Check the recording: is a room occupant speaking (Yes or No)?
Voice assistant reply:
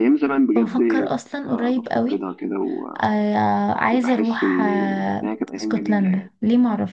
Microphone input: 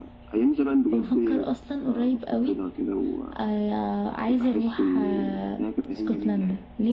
No